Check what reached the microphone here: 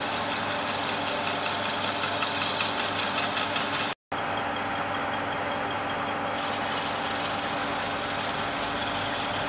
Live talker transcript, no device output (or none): none